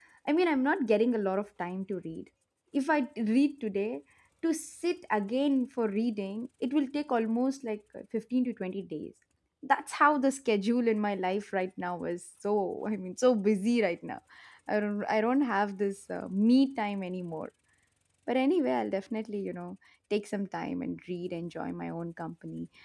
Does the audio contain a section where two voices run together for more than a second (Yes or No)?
No